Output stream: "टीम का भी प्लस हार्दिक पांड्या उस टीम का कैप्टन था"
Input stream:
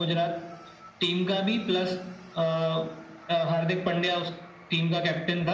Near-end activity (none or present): none